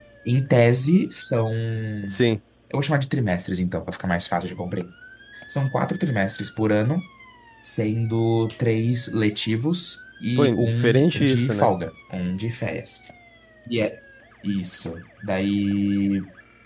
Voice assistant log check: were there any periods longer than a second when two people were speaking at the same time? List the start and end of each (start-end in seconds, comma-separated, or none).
10.4-11.7